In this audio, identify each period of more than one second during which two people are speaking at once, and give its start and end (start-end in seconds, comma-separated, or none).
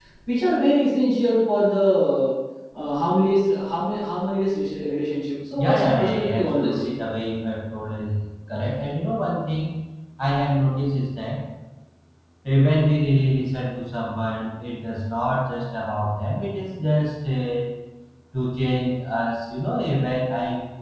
5.6-6.8